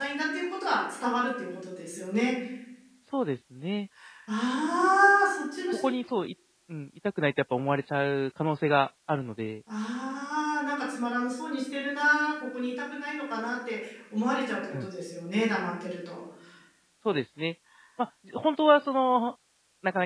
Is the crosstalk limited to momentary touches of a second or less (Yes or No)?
Yes